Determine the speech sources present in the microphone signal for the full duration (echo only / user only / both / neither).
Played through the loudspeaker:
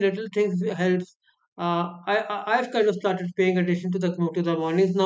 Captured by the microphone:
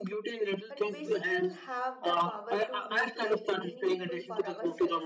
both